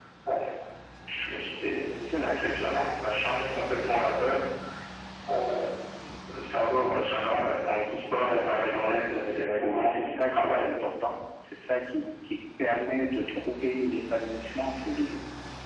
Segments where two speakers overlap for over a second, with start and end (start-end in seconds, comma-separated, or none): 9.3-10.7